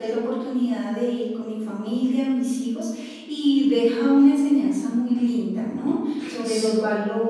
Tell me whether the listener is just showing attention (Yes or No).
Yes